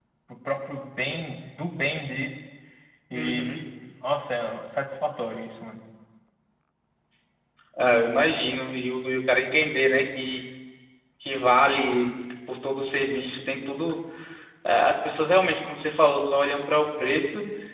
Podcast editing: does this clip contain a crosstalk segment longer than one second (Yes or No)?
No